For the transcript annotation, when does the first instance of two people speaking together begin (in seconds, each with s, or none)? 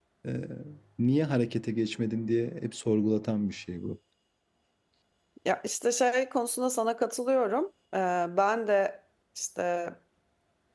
none